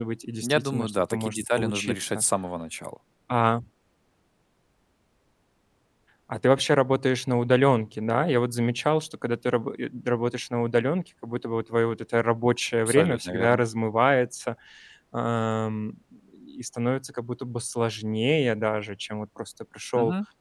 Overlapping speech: Yes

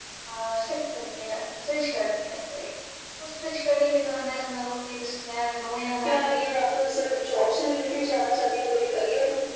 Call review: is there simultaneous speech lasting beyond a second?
No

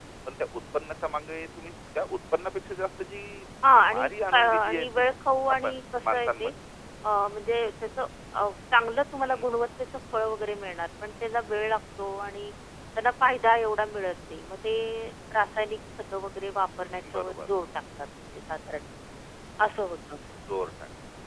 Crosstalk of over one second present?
Yes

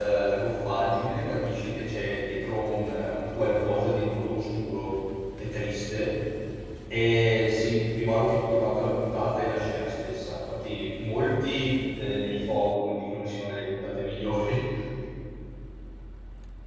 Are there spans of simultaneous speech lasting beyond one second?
No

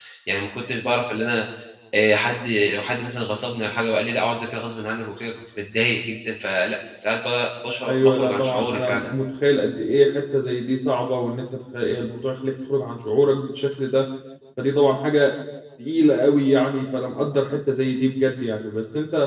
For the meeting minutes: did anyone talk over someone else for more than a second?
Yes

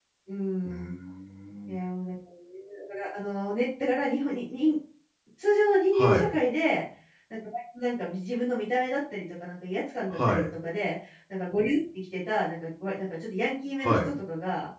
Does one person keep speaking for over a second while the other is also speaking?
No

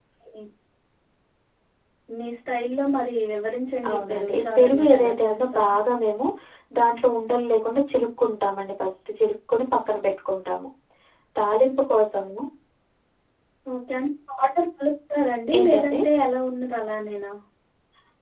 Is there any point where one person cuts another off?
Yes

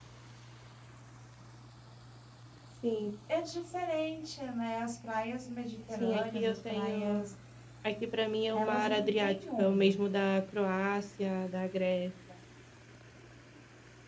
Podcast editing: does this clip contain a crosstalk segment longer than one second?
Yes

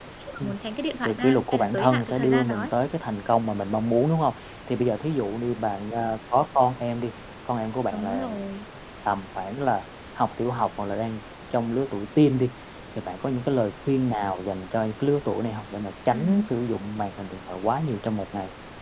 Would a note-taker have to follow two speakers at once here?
Yes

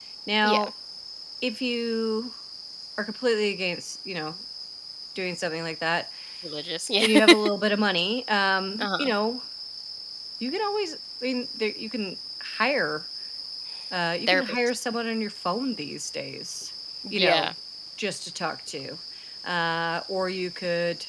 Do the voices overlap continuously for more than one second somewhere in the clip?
No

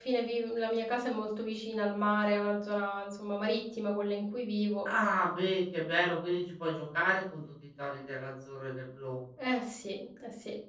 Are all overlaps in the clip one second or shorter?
Yes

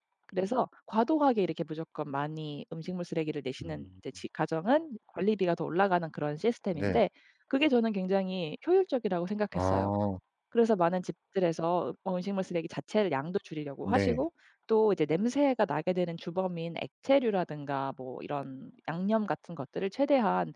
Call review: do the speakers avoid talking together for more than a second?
Yes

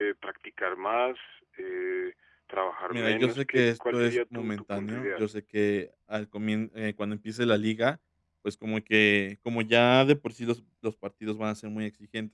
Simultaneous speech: Yes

